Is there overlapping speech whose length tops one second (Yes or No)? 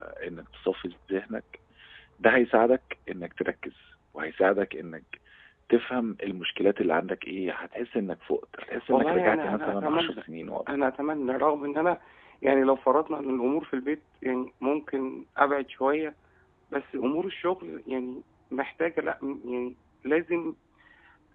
Yes